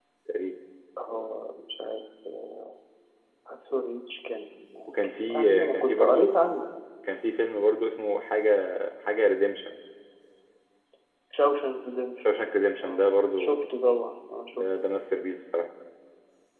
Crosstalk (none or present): present